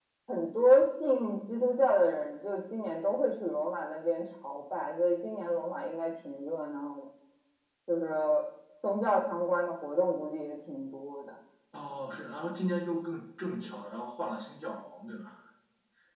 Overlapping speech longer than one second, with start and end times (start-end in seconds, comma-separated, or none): none